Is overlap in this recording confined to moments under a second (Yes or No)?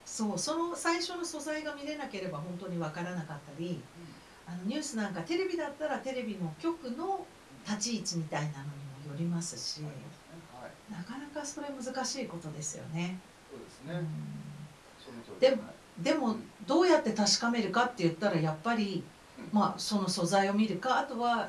Yes